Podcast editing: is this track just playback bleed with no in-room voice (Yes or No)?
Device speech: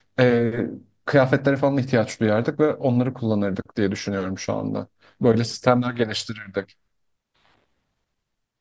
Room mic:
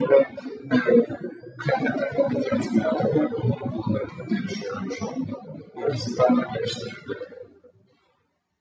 Yes